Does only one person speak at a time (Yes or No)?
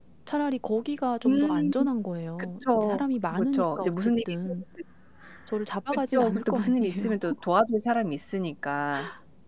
No